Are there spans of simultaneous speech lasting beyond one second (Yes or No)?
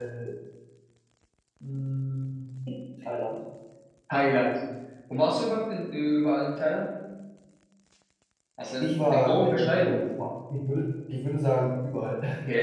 Yes